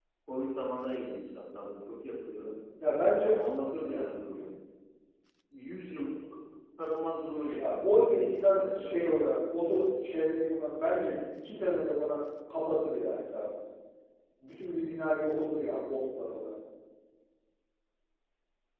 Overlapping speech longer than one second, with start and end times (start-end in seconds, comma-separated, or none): 7.6-9.2